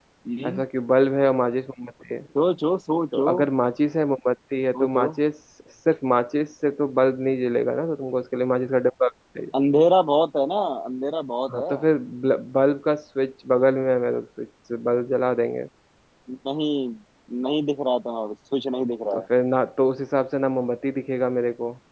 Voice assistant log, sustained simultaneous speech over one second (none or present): none